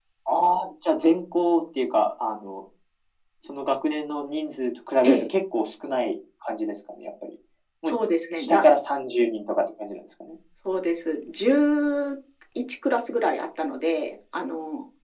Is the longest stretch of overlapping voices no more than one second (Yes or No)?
Yes